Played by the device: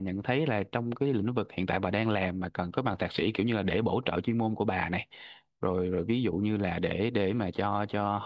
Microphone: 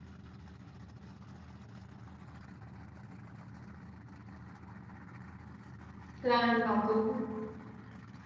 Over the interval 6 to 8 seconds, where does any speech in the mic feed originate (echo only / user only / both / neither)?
user only